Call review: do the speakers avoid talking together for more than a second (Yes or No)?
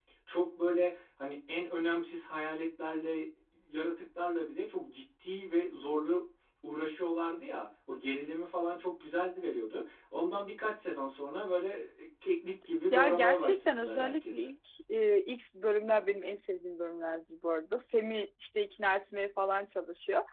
No